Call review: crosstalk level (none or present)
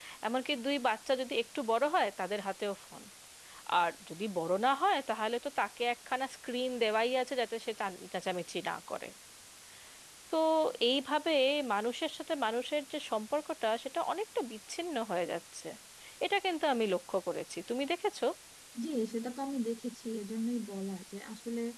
none